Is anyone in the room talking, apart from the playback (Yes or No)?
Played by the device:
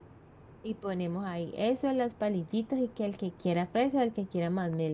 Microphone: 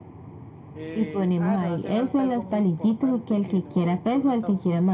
Yes